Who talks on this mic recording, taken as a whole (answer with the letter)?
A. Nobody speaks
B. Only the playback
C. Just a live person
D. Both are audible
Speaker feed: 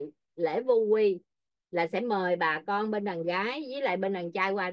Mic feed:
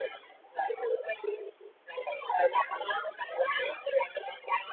B